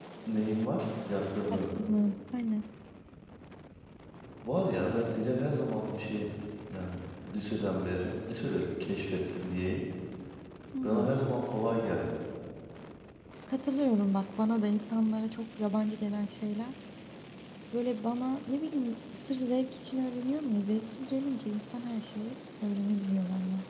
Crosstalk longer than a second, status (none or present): none